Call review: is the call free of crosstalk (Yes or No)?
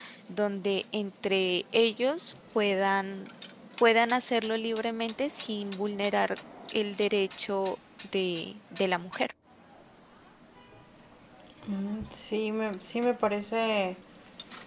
Yes